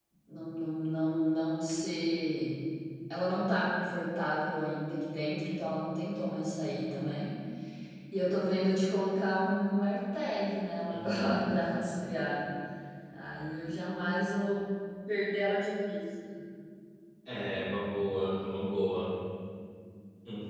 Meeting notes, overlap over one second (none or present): none